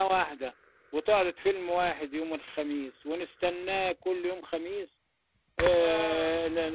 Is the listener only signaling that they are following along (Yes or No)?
Yes